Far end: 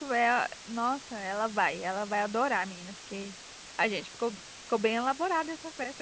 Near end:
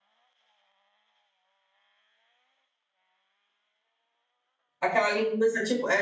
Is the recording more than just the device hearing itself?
Yes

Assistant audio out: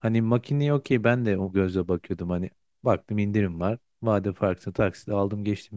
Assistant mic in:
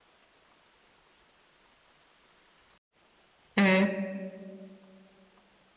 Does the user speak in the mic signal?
Yes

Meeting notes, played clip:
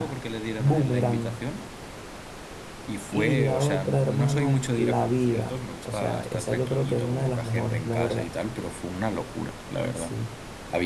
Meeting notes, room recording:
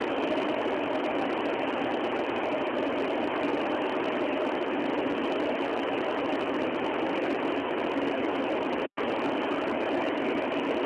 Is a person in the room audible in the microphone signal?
No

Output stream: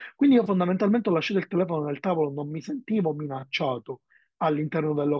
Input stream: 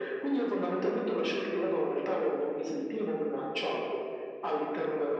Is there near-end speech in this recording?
No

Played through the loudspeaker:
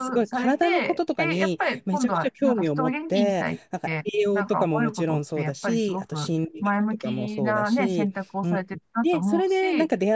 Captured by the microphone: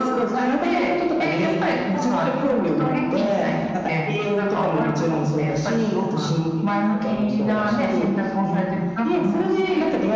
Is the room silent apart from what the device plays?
Yes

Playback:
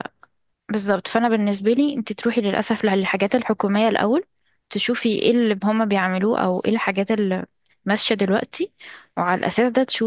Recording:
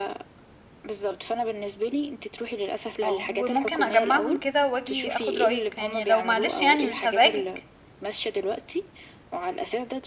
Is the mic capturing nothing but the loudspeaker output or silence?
No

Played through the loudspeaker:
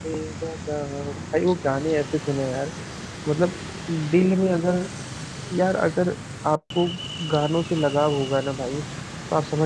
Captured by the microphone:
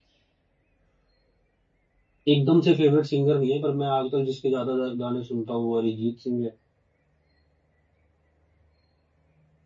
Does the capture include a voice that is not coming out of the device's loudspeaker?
Yes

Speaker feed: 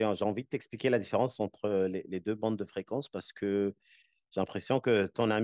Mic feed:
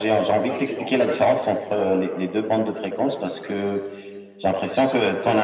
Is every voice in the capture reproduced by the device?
No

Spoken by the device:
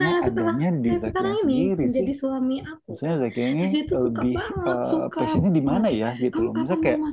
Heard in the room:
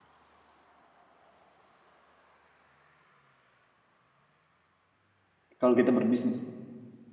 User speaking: Yes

